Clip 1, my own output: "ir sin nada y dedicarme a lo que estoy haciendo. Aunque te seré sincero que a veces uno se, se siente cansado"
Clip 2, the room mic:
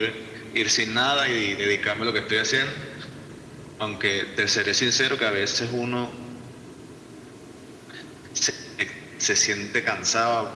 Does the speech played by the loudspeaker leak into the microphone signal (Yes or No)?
Yes